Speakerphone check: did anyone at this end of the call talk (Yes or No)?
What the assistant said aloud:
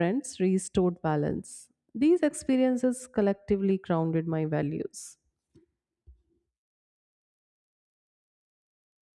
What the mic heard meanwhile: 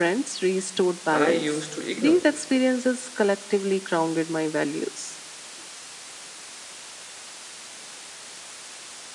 Yes